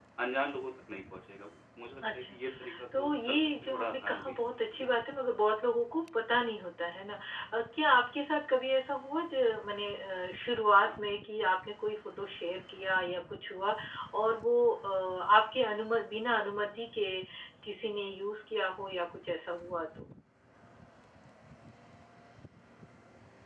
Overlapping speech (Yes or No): Yes